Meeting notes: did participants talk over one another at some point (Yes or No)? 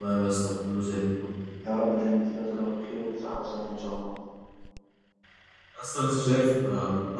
No